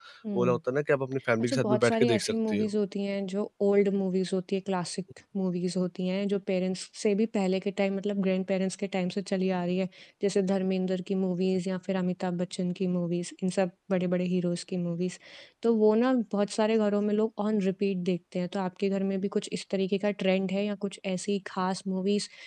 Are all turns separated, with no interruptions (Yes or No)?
No